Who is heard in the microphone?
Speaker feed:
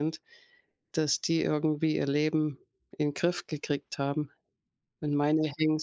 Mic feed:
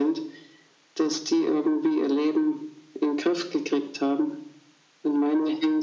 echo only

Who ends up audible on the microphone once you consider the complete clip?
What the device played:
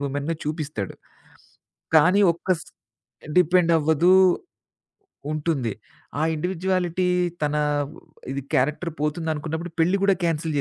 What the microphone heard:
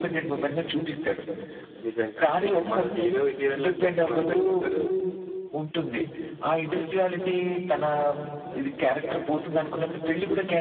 both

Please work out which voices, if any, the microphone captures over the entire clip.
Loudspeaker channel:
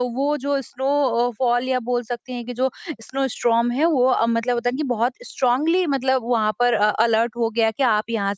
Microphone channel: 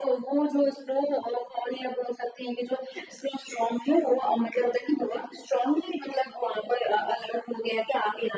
echo only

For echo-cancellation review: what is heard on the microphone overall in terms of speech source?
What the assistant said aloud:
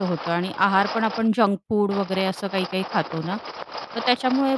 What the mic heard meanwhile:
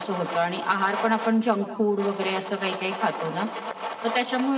echo only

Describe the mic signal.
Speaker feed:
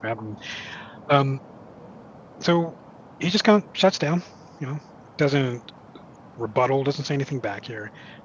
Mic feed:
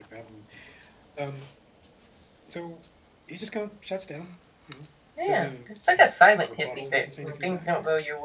both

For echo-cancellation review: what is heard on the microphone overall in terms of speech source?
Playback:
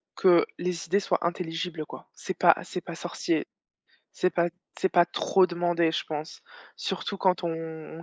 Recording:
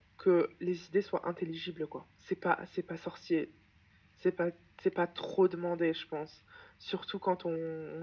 echo only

